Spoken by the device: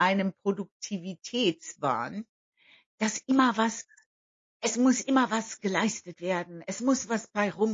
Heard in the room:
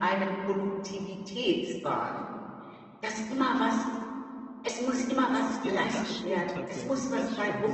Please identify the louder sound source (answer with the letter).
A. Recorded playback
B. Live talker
A